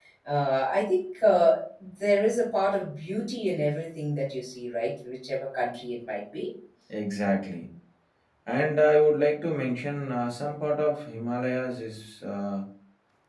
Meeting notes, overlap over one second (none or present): none